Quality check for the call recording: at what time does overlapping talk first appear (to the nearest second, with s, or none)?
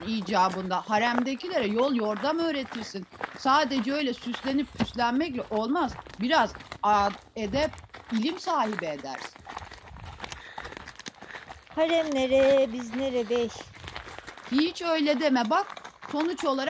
none